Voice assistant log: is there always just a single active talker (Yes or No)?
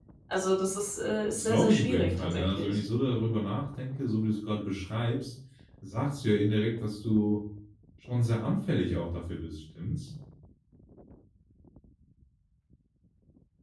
No